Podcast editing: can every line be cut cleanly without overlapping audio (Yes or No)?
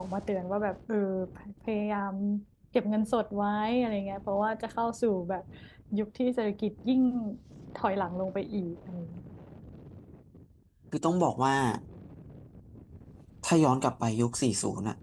Yes